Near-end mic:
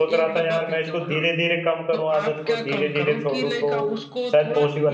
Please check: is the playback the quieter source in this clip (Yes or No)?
Yes